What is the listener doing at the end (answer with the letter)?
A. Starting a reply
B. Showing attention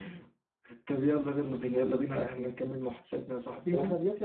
A